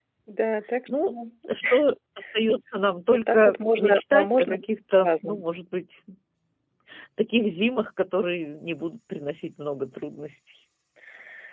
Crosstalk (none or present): present